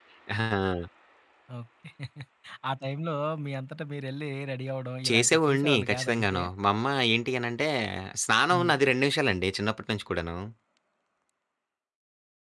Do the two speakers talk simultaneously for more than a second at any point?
Yes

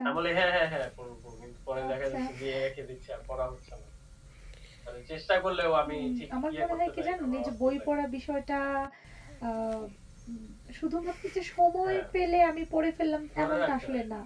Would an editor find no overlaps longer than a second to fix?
No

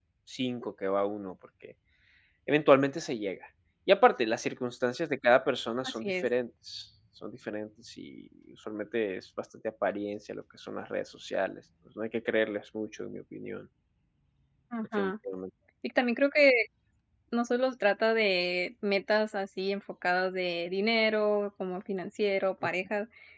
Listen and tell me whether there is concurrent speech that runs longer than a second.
No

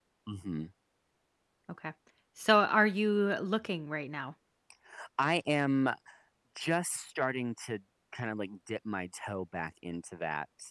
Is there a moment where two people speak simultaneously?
No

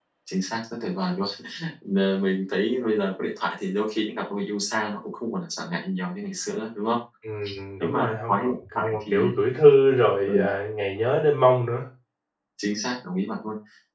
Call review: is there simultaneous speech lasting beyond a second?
Yes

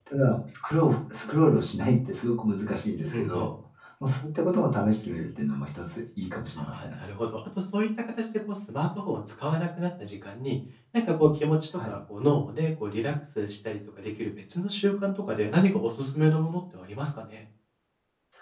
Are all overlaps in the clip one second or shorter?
Yes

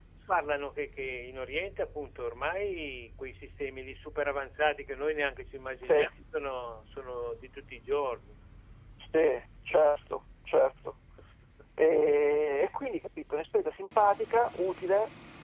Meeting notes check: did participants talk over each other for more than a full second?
No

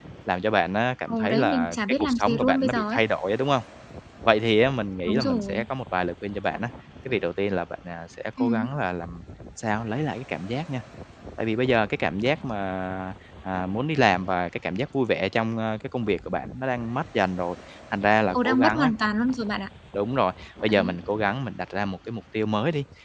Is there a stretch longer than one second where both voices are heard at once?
Yes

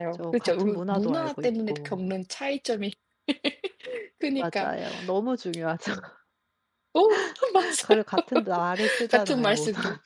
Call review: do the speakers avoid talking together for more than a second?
No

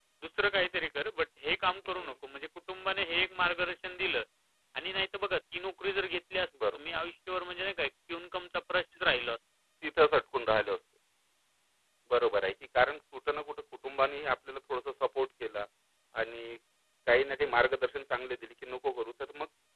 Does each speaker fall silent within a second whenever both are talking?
Yes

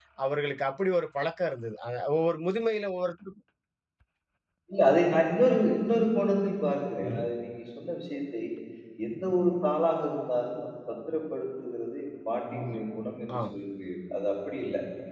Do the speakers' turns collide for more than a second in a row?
No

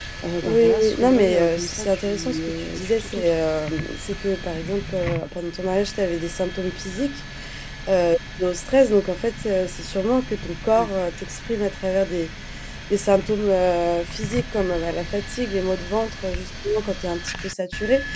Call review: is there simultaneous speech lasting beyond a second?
Yes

